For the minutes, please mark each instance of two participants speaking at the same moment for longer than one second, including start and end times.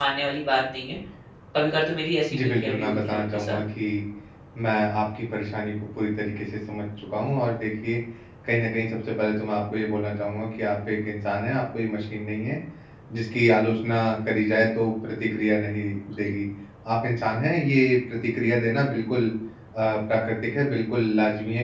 2.3-3.6

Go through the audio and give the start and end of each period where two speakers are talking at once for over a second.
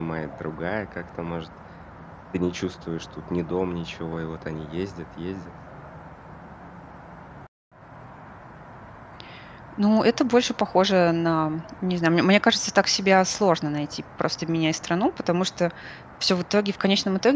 none

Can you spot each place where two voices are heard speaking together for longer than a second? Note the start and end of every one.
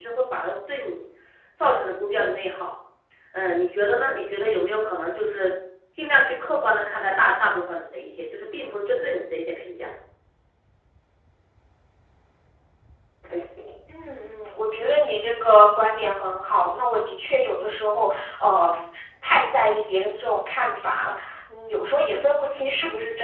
none

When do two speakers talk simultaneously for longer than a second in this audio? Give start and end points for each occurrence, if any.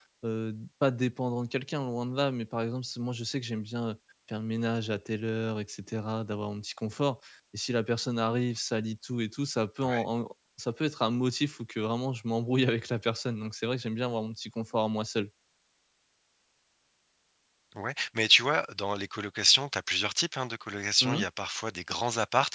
none

